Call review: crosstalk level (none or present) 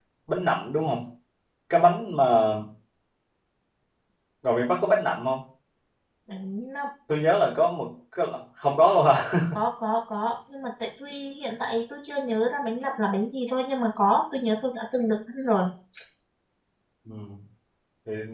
none